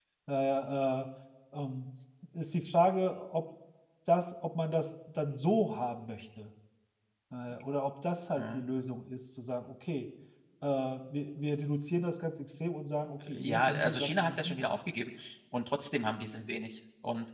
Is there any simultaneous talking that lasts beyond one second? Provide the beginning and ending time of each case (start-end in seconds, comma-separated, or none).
13.3-14.8